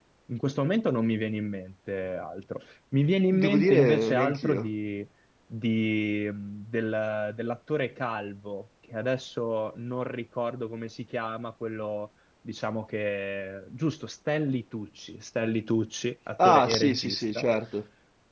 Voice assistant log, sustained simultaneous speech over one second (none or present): present